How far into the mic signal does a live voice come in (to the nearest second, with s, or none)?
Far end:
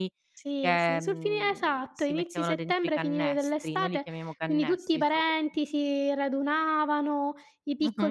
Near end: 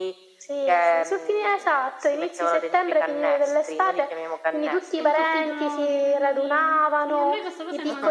5 s